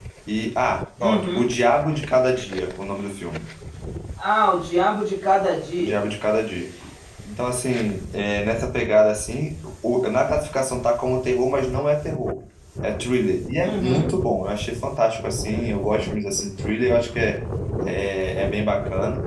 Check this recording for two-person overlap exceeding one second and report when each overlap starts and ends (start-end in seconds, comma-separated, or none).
none